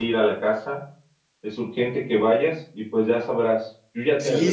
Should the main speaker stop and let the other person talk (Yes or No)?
Yes